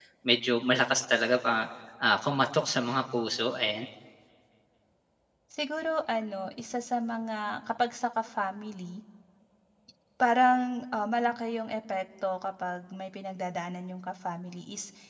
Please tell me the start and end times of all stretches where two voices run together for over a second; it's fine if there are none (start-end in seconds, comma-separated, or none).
none